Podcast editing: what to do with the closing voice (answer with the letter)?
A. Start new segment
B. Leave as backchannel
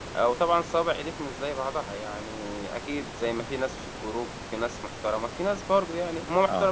B